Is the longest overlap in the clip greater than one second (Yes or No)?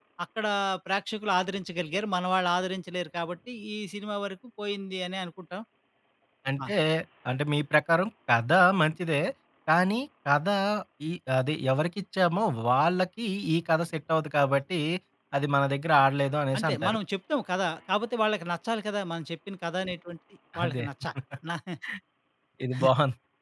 No